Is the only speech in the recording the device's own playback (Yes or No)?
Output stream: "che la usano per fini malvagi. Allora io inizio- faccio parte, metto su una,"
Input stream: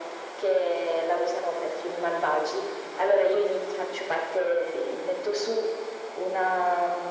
Yes